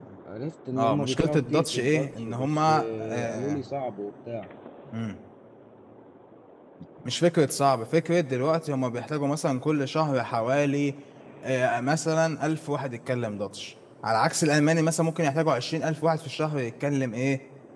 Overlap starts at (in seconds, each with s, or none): 0.8 s